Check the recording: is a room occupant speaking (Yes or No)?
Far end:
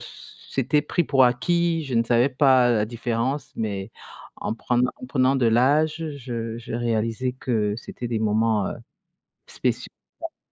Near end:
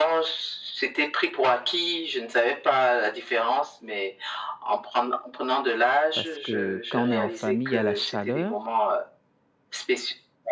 Yes